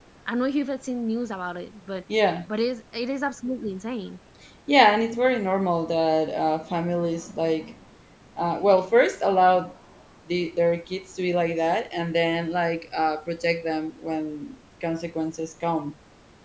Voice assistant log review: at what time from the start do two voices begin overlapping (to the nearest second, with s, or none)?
none